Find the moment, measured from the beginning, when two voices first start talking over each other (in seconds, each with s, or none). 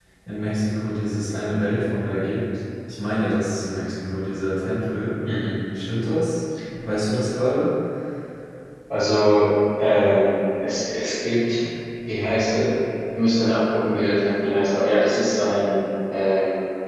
none